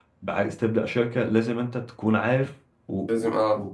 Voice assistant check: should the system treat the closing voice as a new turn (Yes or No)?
No